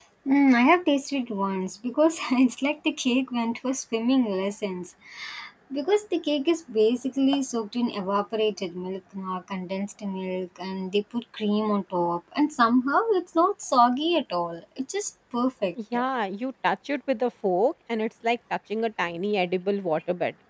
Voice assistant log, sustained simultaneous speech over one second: none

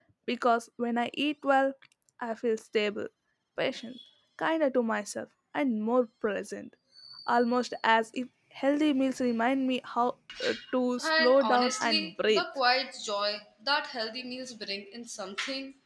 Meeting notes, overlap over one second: present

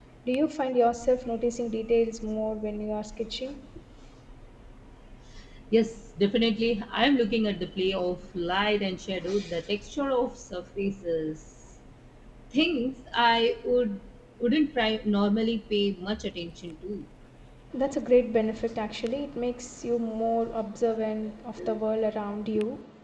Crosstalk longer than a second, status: none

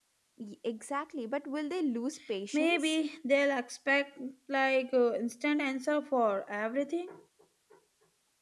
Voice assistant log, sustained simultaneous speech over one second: none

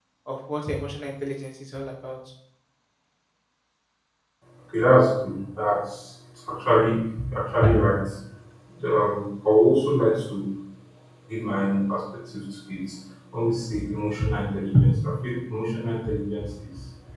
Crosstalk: none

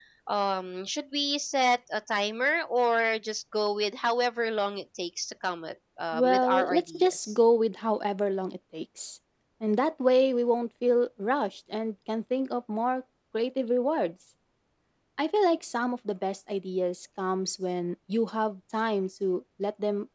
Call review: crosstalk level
present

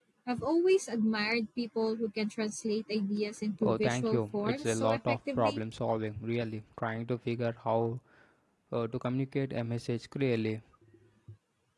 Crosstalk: present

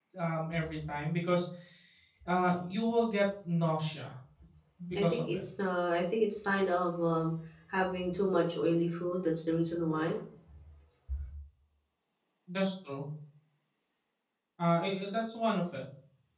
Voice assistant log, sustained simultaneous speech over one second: none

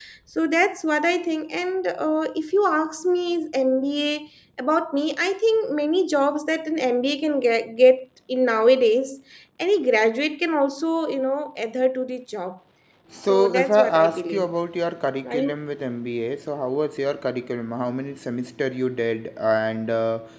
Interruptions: present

